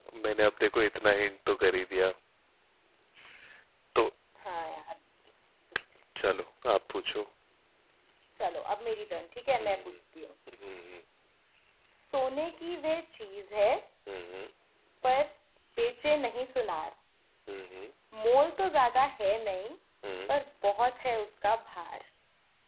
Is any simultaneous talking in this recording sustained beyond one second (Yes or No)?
No